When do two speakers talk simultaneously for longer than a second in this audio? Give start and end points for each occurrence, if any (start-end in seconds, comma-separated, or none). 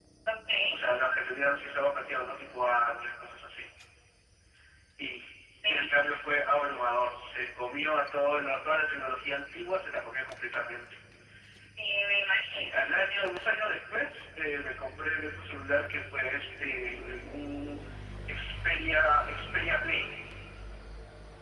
none